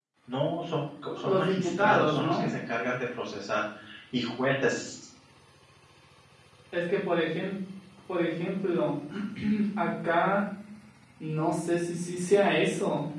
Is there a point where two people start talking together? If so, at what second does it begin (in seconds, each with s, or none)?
1.2 s